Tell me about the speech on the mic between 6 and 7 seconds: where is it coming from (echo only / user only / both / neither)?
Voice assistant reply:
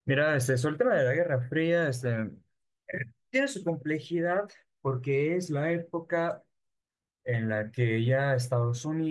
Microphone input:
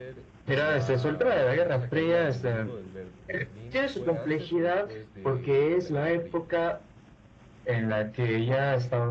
both